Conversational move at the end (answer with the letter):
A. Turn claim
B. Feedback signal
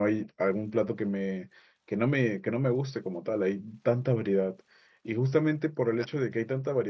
B